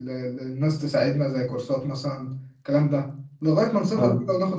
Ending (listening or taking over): listening